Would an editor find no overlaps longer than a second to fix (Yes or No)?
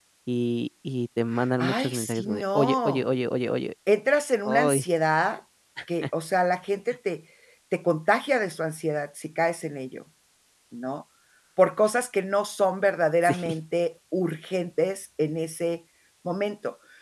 No